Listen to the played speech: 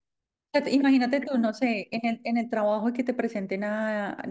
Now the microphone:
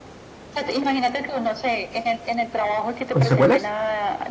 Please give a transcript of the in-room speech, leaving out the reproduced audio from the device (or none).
¿Con secuelas?